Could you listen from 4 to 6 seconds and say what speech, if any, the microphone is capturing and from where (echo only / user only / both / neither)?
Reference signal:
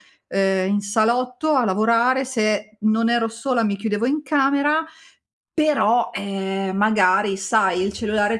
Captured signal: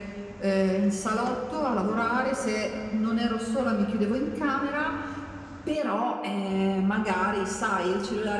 echo only